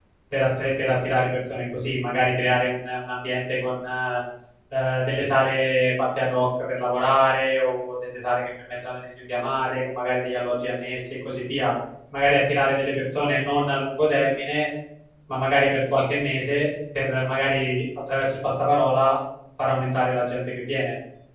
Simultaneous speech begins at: none

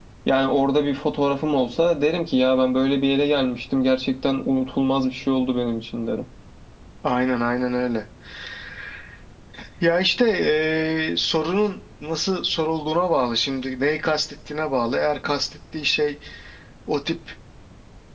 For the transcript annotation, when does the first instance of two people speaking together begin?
none

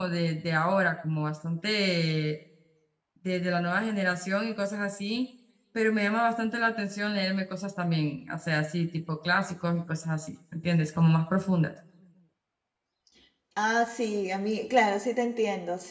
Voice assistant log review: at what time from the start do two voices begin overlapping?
none

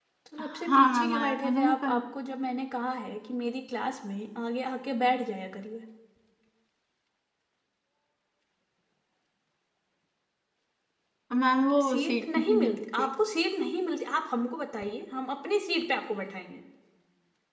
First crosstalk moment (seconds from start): 0.7 s

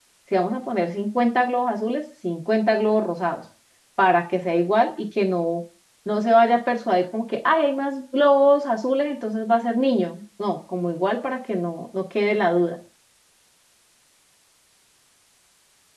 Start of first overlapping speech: none

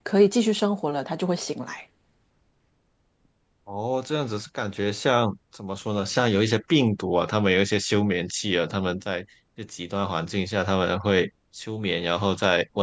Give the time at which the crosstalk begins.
none

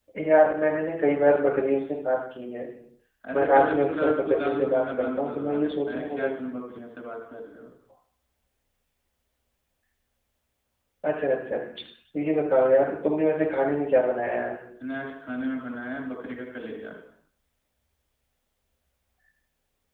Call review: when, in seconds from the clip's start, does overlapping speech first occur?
3.3 s

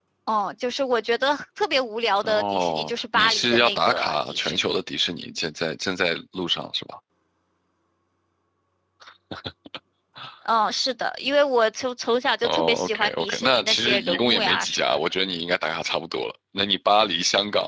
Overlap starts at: 2.2 s

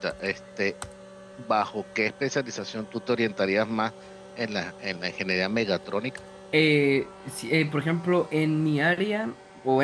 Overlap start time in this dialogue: none

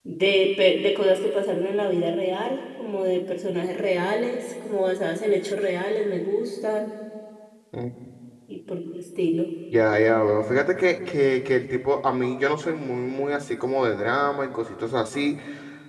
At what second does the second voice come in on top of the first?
none

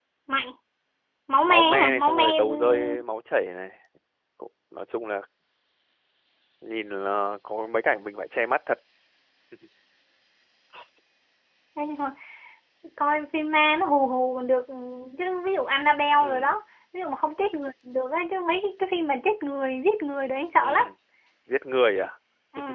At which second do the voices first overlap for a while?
1.4 s

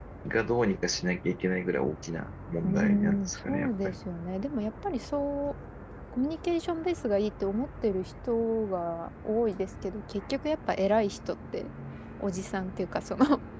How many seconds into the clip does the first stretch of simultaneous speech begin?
2.6 s

